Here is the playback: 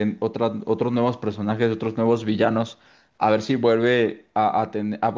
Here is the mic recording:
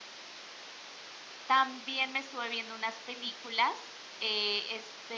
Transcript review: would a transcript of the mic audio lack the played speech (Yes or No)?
Yes